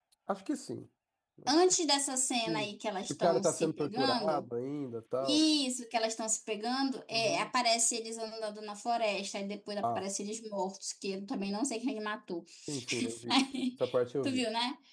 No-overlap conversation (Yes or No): No